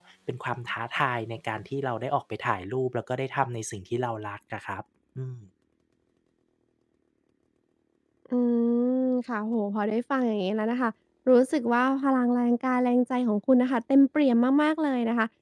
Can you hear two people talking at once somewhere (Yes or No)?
No